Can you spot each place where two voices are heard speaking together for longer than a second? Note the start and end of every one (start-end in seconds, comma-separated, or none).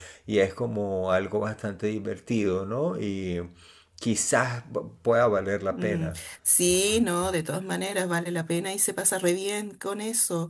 none